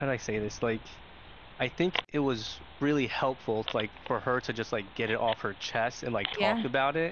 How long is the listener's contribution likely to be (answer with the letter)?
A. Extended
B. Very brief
B